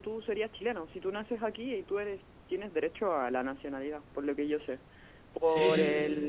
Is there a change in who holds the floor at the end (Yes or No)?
No